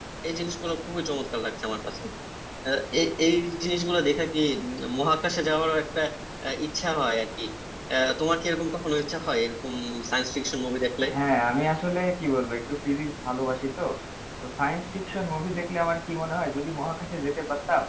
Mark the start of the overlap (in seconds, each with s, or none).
none